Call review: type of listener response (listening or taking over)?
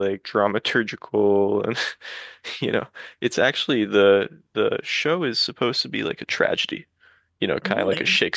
listening